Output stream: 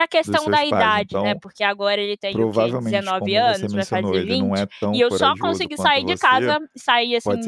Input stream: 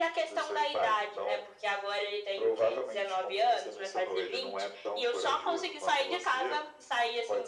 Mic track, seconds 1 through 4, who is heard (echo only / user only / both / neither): echo only